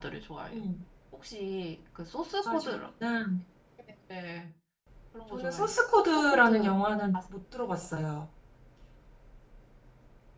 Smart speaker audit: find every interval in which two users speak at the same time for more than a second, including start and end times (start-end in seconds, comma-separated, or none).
5.3-6.7